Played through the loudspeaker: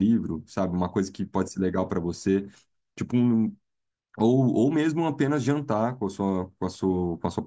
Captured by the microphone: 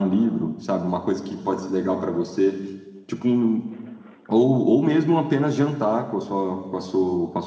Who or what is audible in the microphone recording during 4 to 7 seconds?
echo only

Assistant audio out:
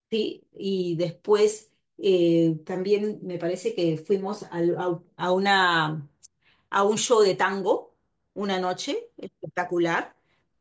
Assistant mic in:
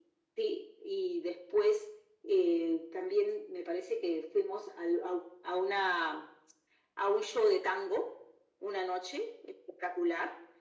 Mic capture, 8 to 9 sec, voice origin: echo only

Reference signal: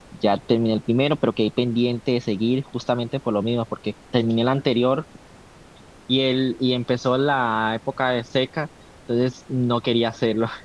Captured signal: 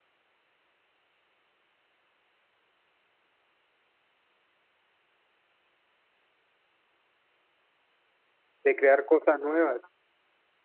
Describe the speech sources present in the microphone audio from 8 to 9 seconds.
user only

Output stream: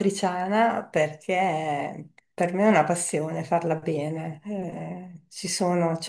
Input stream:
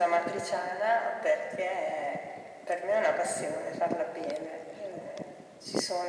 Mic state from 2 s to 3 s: echo only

